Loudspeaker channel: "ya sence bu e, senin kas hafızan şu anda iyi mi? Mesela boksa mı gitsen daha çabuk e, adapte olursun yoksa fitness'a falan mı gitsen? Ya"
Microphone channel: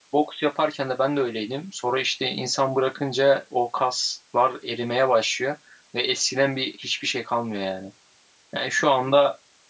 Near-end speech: present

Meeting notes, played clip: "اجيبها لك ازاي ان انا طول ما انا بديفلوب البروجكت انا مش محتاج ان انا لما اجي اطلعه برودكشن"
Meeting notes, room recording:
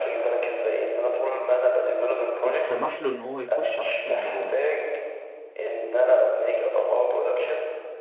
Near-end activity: present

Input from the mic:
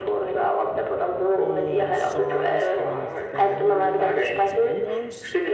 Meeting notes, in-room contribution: present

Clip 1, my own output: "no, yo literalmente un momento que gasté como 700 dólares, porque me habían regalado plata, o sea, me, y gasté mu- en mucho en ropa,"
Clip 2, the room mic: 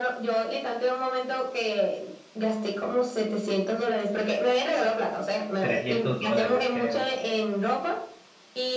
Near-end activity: present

